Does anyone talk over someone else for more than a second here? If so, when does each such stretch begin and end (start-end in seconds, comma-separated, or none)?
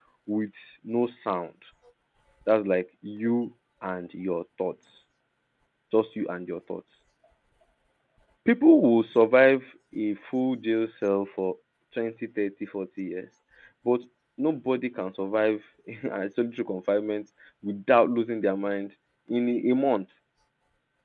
none